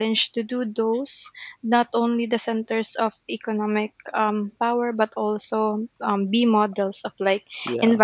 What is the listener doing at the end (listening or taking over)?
listening